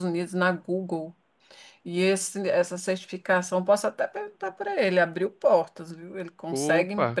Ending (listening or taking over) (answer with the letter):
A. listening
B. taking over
A